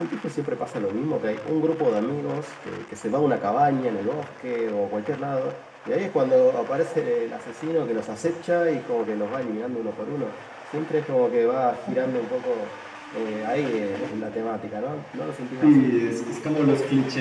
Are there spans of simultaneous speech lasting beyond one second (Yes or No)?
No